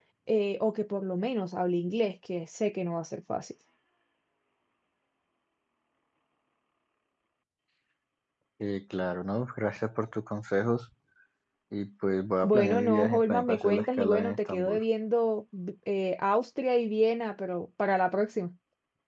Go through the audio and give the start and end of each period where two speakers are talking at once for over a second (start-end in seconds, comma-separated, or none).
12.4-14.8